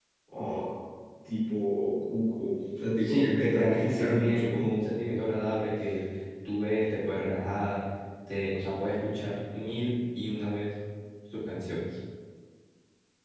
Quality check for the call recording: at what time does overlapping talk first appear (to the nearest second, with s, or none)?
3 s